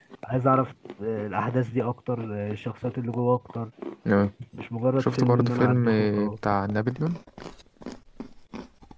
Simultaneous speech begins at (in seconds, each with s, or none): 5.0 s